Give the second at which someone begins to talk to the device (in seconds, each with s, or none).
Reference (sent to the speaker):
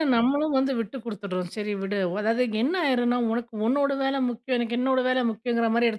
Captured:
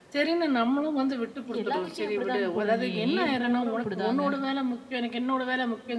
1.4 s